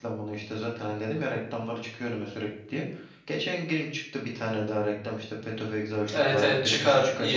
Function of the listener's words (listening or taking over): taking over